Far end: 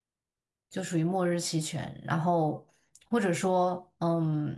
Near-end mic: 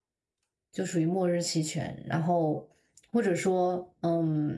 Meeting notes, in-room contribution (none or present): none